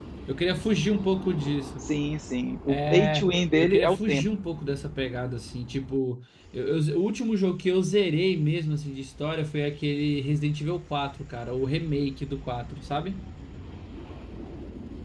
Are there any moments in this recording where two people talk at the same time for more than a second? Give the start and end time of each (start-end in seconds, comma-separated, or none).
2.7-4.2